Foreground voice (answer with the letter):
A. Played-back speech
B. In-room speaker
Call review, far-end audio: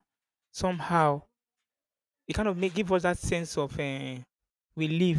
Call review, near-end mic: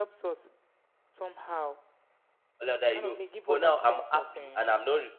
B